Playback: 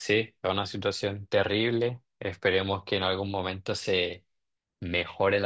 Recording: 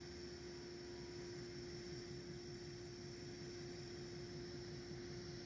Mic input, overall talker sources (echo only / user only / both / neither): neither